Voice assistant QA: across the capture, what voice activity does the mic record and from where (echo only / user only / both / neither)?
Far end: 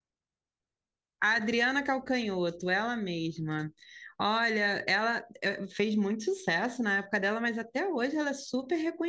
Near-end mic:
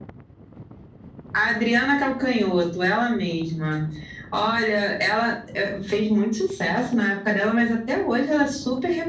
echo only